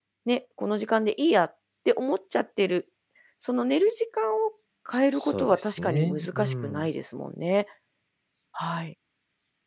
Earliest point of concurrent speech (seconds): 5.2 s

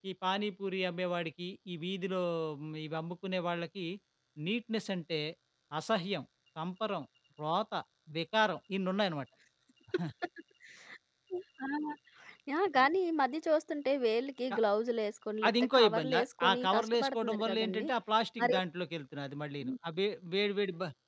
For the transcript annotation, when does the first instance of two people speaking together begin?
15.5 s

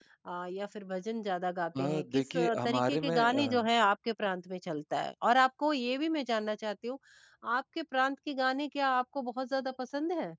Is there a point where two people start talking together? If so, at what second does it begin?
1.8 s

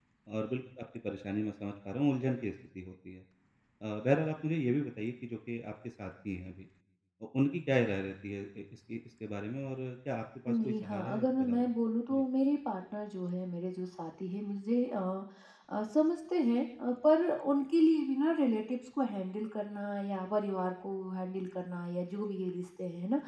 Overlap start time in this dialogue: 10.5 s

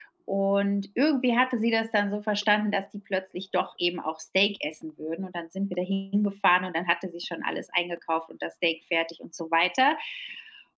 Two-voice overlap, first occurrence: none

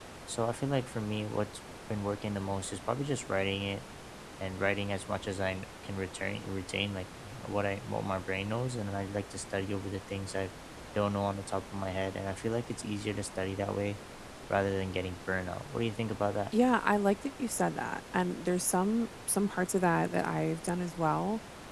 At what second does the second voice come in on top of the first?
none

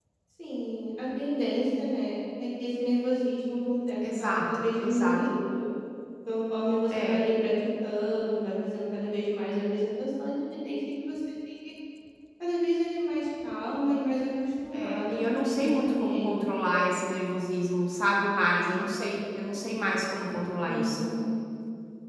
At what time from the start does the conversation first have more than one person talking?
4.0 s

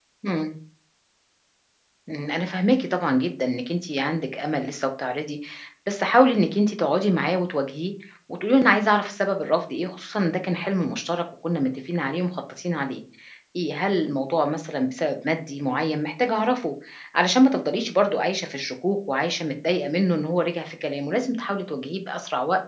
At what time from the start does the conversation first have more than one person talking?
none

